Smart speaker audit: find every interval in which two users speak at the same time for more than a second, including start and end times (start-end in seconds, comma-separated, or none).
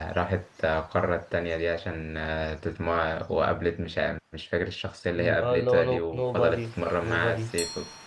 5.2-6.7